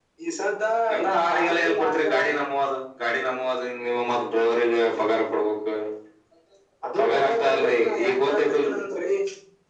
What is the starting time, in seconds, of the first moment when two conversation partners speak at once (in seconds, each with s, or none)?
1.1 s